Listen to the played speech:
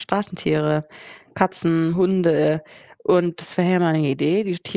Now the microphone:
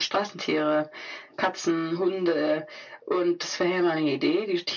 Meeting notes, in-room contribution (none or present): none